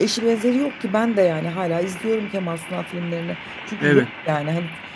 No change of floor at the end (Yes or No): Yes